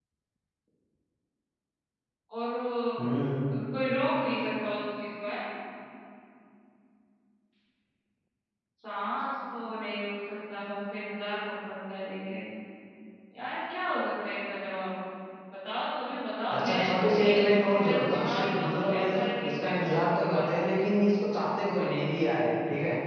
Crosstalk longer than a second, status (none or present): present